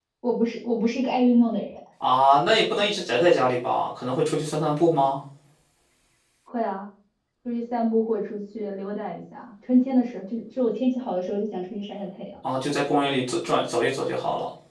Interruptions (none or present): none